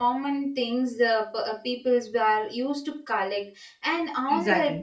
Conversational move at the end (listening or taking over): listening